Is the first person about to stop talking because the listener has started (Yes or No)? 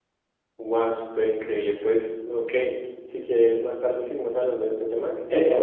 Yes